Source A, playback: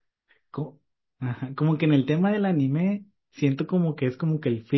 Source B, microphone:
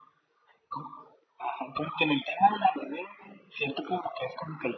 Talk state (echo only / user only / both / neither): echo only